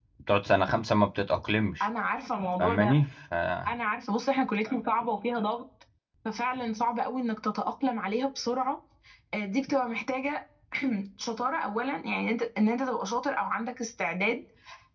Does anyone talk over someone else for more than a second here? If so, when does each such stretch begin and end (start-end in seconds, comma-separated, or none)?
none